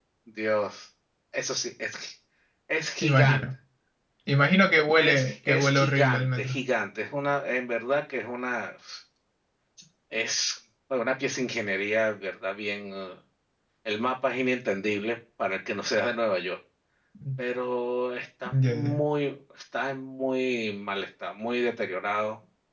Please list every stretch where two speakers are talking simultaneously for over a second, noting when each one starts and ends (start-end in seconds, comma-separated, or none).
5.0-6.5